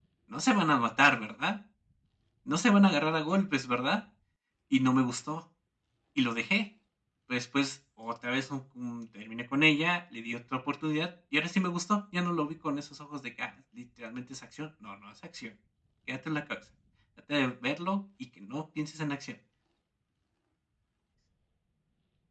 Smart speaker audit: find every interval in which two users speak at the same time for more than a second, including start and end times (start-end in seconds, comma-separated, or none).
none